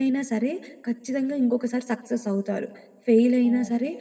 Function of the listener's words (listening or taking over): listening